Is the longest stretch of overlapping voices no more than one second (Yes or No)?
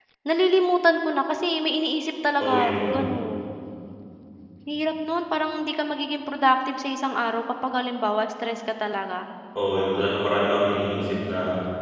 Yes